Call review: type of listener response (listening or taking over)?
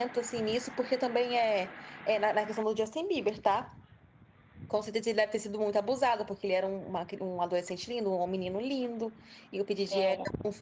listening